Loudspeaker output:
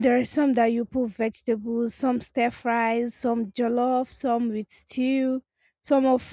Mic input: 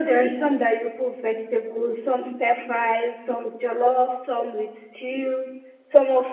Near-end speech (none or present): none